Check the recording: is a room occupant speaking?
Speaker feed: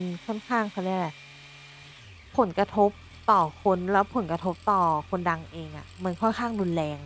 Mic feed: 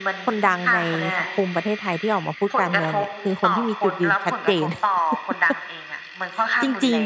Yes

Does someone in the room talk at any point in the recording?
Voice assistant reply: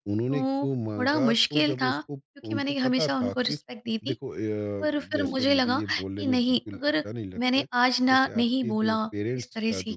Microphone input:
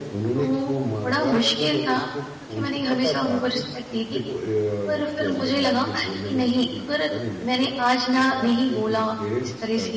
No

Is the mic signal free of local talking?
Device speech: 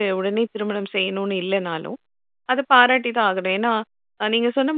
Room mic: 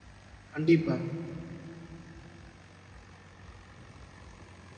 No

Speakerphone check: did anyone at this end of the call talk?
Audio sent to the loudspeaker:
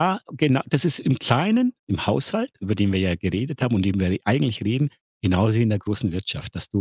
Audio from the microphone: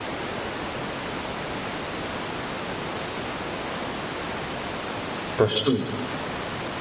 Yes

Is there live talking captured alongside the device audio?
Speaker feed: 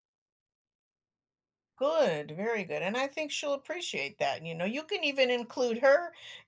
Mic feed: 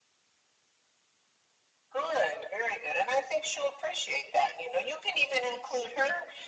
No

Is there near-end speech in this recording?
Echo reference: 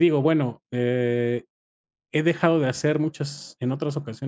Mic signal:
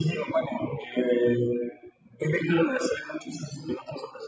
No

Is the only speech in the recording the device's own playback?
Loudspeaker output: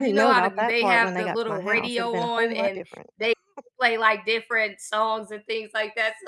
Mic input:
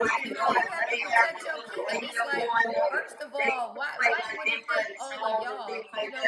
No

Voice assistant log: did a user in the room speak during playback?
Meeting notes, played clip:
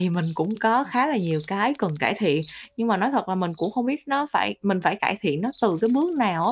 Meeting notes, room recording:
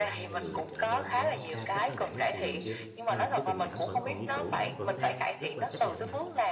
Yes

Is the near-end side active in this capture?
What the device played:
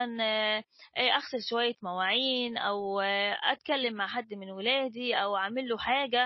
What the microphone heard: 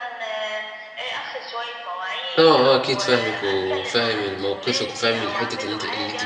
Yes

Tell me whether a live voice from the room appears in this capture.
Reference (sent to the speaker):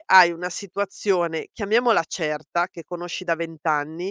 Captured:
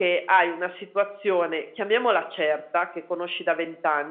No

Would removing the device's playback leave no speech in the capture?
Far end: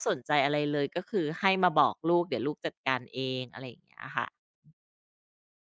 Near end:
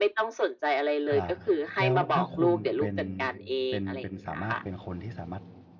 No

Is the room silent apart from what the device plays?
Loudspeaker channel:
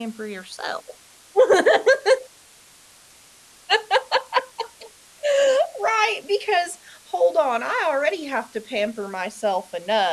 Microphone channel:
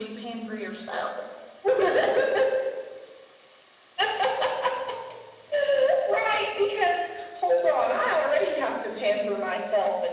Yes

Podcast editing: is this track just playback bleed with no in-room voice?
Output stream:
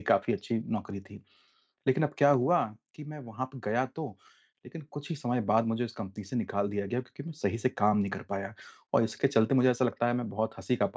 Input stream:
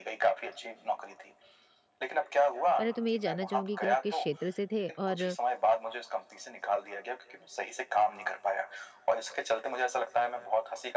No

